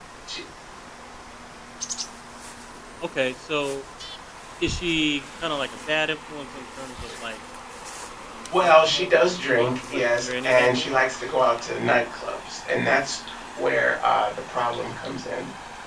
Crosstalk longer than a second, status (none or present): present